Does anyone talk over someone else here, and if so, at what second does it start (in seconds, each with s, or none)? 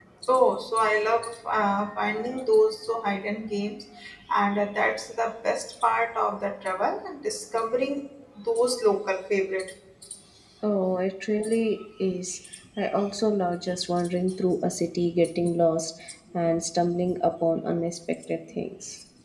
none